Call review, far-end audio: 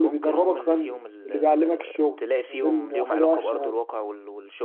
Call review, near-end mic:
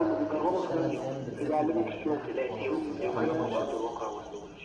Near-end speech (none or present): present